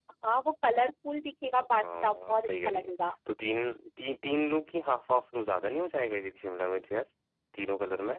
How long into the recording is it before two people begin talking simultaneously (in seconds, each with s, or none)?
1.8 s